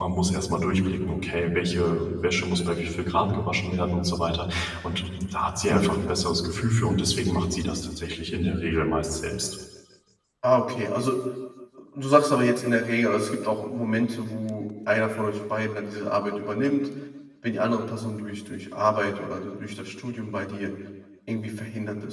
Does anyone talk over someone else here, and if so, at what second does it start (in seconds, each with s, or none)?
none